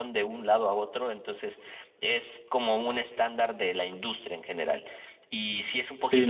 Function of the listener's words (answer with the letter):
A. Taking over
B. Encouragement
A